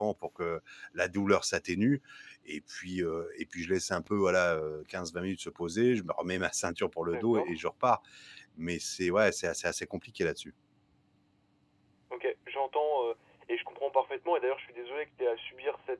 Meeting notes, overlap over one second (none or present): none